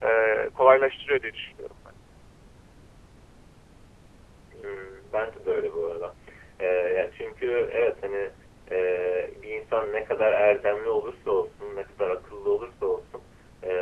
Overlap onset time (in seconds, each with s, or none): none